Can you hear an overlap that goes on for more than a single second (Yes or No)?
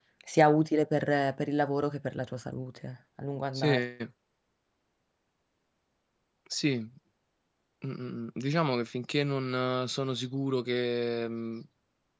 No